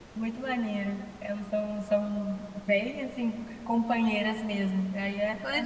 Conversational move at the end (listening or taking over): taking over